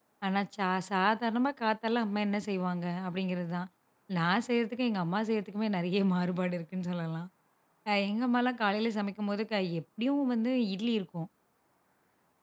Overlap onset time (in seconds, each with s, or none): none